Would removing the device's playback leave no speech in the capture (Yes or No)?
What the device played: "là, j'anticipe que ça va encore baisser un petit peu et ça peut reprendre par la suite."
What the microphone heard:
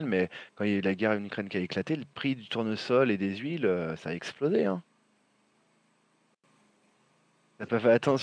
No